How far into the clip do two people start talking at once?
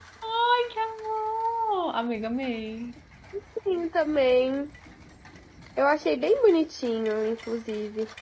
none

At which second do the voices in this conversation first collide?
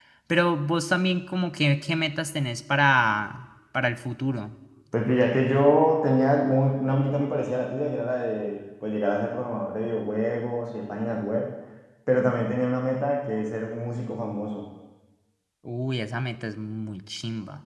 none

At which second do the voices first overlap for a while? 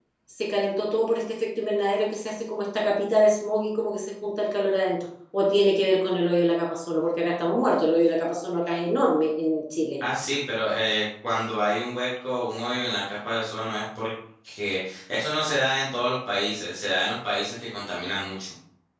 none

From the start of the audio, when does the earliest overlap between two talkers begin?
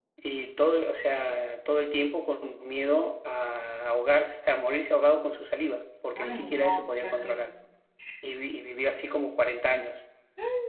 6.2 s

